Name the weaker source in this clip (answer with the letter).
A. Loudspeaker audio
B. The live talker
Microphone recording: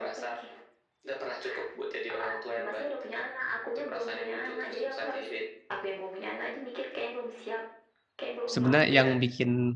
A